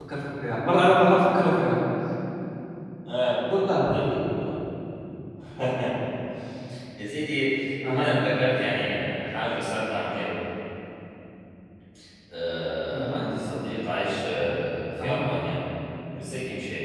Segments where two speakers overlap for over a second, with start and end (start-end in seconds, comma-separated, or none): none